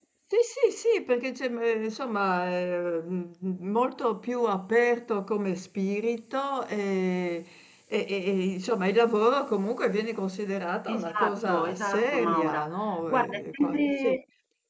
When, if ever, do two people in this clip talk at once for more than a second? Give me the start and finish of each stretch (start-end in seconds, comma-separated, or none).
10.9-14.2